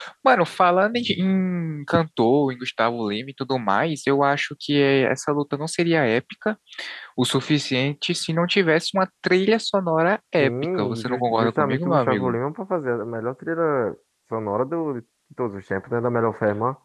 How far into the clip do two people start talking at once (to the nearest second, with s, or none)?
10 s